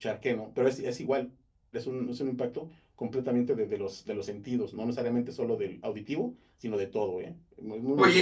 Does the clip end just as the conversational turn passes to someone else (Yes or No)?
Yes